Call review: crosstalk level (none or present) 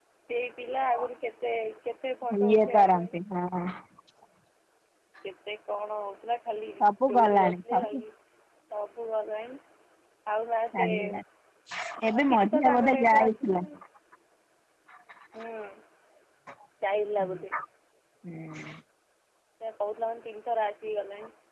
present